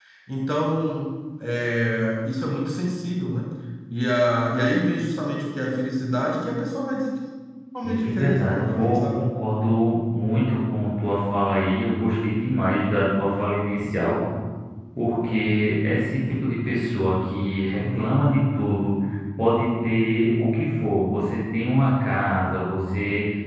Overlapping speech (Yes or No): Yes